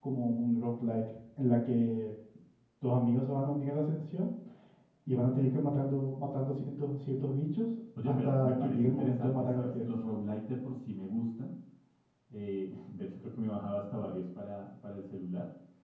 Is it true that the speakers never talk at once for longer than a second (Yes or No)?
No